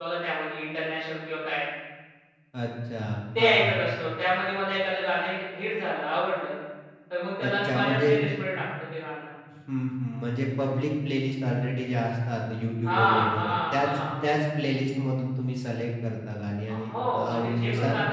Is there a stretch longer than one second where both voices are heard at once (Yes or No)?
Yes